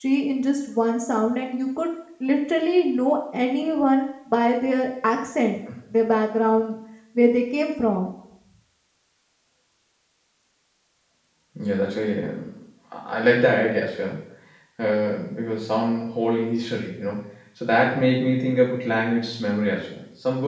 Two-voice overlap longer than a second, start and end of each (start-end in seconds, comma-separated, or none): none